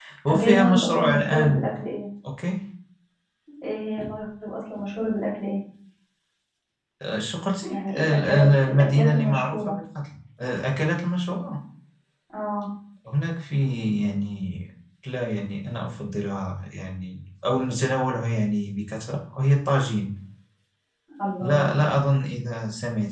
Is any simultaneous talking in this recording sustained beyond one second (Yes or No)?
Yes